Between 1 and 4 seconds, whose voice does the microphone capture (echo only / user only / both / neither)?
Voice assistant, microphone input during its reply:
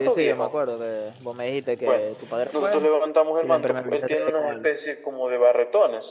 both